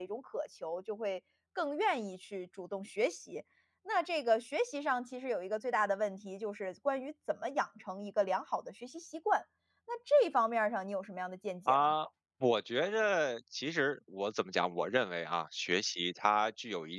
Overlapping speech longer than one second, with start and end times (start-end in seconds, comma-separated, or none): none